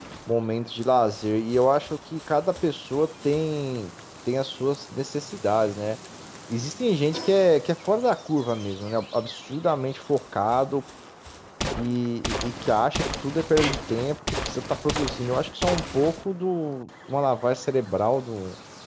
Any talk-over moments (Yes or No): No